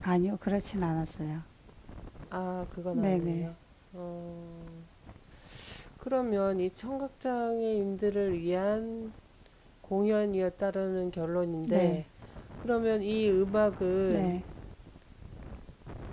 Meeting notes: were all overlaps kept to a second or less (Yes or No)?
Yes